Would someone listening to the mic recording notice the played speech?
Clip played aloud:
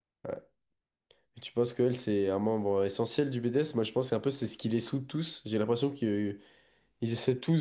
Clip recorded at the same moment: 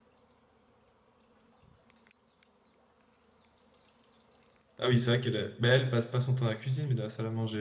No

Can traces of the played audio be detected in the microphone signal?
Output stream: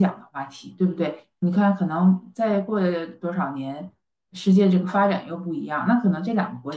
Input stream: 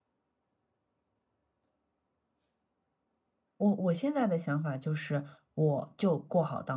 No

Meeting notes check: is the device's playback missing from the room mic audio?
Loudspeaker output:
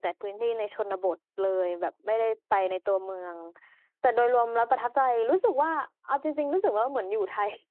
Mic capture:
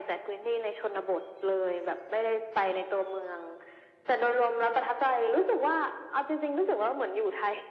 No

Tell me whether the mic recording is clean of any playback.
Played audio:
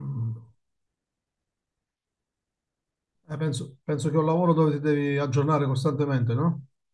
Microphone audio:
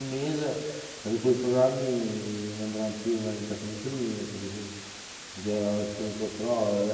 Yes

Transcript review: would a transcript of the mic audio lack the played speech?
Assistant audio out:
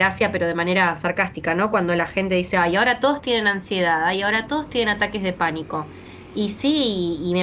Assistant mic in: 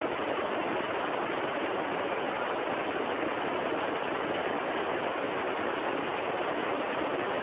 Yes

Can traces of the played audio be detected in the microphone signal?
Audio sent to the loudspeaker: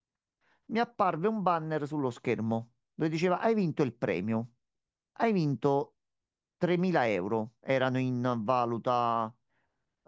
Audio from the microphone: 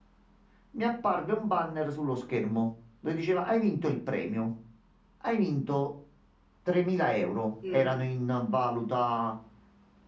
Yes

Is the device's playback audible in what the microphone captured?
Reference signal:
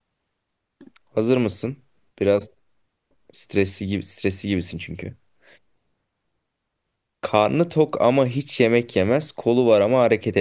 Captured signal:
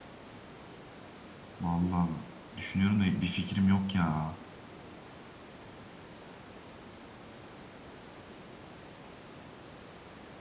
No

